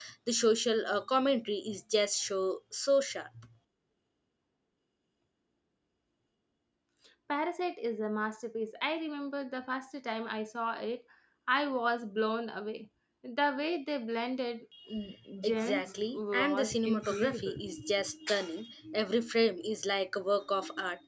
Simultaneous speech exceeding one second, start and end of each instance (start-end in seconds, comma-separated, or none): 15.4-17.6